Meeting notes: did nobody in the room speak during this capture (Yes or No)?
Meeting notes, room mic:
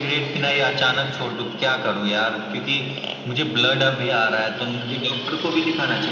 Yes